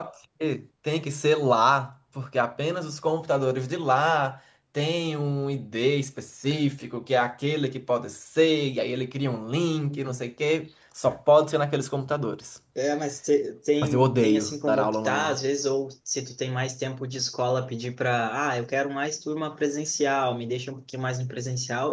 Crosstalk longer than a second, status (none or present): present